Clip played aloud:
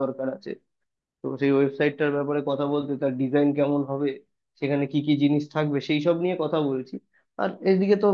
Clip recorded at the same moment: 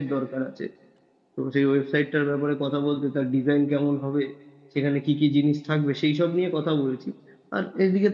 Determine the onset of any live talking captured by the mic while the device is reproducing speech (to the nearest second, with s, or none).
none